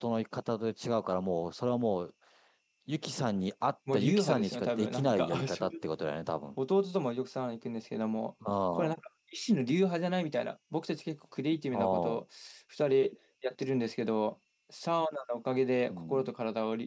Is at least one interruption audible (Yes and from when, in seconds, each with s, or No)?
Yes, from 3.9 s